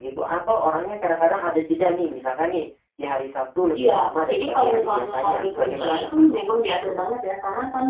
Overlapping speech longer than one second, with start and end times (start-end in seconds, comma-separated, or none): 3.8-6.2